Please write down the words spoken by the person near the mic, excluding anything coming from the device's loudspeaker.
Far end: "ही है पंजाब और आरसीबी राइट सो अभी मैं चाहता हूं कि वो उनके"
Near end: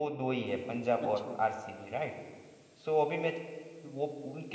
अच्छा

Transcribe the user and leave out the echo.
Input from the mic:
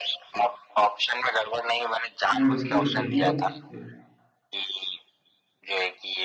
नहीं रुकिए रुकिए हिंट मत दीजिए।

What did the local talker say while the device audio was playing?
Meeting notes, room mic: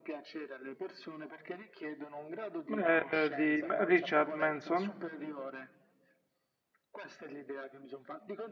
Eh, di Richard Manson.

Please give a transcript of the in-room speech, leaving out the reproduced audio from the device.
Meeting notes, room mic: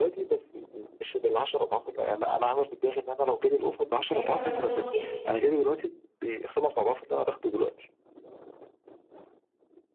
ايوه حاجة غلط جدا

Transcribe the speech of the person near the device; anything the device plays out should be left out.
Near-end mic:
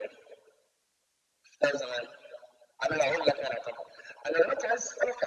none

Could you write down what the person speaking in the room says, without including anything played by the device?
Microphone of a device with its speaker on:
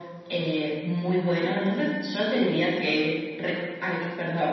none

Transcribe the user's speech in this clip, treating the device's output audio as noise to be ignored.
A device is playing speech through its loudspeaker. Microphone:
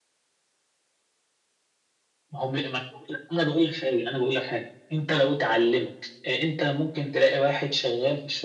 none

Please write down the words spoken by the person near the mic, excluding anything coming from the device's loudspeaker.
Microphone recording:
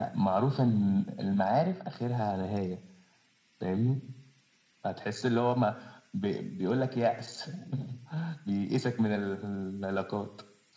none

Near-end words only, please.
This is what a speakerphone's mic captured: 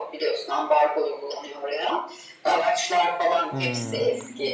Hmm.

